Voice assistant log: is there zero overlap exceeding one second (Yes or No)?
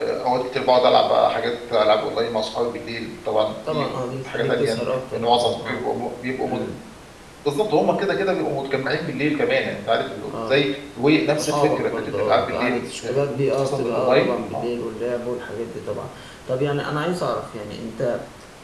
No